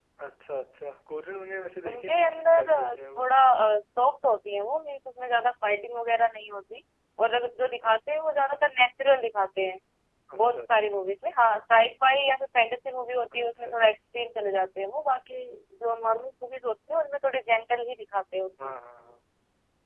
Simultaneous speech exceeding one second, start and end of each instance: 1.9-3.2

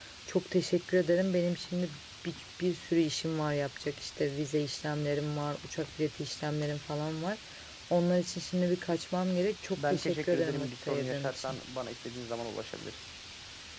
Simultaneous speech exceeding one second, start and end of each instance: 9.8-11.6

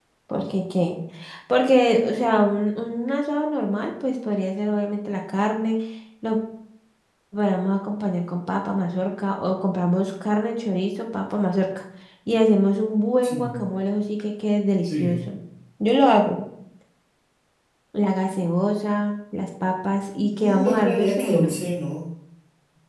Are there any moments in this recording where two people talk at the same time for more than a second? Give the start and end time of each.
20.4-21.6

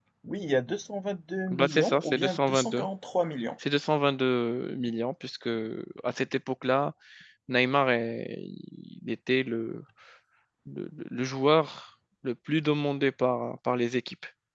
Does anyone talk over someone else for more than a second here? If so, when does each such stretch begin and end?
1.5-2.9

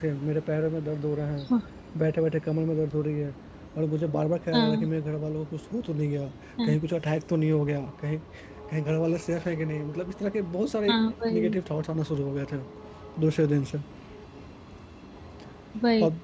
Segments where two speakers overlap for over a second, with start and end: none

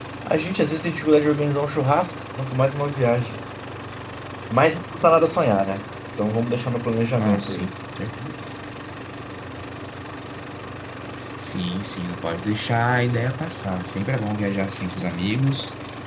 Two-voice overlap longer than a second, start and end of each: none

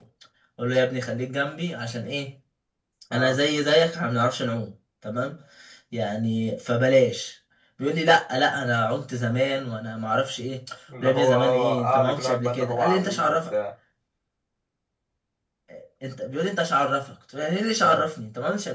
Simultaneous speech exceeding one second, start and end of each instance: 11.0-13.4

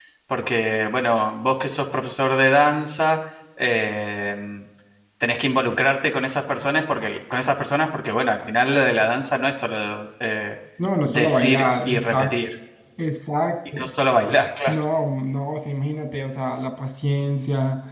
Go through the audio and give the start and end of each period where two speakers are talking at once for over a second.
11.0-12.4

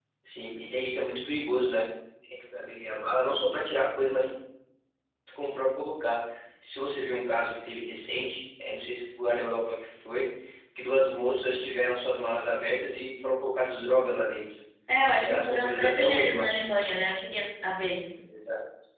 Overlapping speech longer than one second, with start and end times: 15.2-16.5

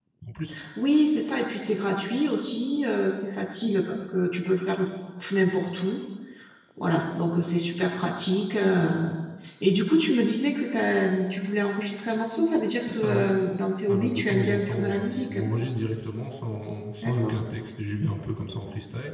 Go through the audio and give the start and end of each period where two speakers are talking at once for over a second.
13.9-15.4

